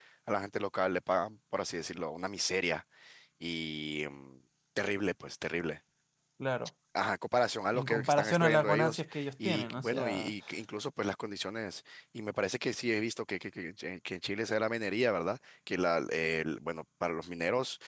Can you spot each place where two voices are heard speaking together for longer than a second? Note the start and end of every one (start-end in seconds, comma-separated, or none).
7.7-10.3